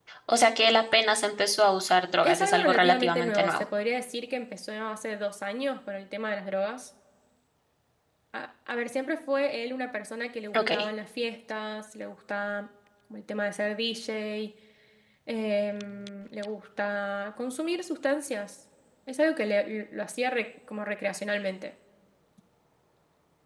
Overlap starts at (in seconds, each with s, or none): 2.2 s